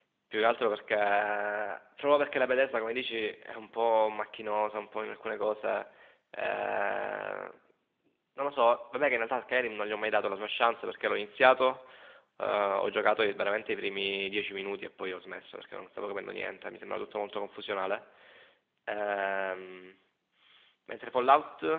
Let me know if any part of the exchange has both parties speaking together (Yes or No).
No